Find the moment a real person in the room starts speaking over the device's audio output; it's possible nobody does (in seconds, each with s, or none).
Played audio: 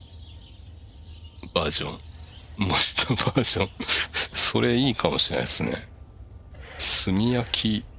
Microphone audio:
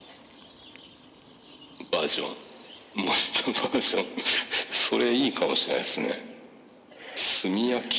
none